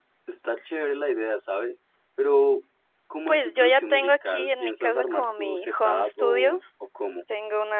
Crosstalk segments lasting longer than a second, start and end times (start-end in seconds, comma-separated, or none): 3.3-6.6